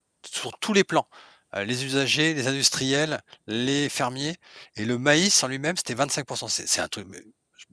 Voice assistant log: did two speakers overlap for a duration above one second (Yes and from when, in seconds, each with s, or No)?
No